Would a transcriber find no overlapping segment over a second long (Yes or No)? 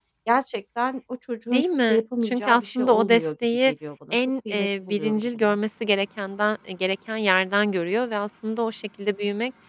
No